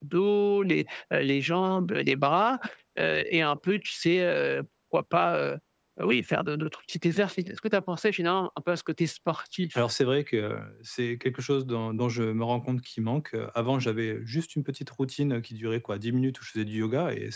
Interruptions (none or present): none